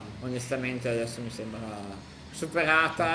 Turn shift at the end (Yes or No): No